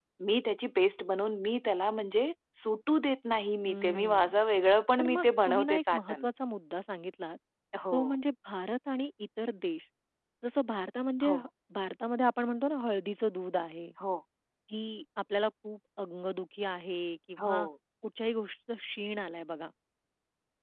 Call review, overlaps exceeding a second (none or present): present